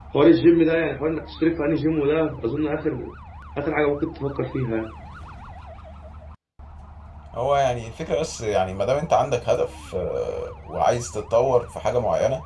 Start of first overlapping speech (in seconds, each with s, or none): none